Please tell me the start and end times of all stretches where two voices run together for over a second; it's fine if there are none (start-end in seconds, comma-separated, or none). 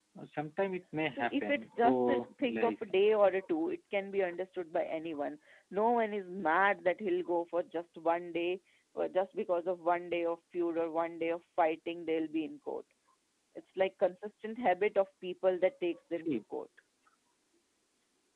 1.1-2.7